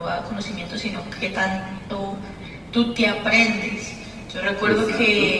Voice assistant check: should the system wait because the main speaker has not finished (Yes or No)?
Yes